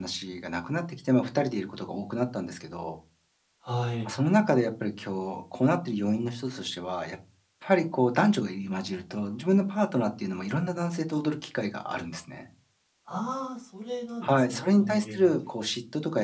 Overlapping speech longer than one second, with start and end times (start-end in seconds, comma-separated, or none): 14.2-15.5